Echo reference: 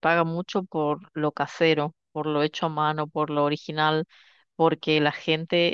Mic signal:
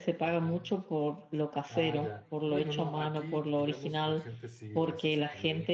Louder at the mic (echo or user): echo